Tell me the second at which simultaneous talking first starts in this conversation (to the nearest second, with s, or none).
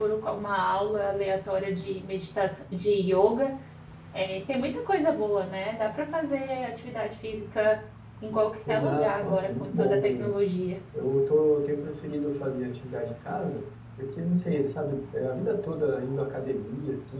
9 s